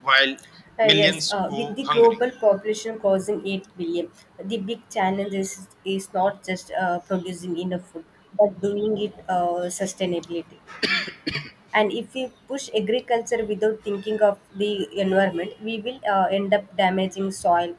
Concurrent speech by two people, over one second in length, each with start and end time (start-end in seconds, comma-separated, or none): 0.8-2.2